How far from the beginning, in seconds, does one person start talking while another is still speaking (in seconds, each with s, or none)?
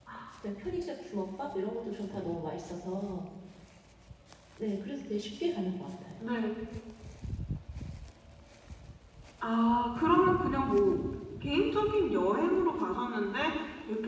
none